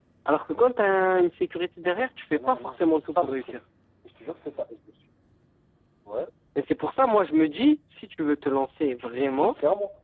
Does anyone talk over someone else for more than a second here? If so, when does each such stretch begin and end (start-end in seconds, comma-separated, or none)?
1.8-3.6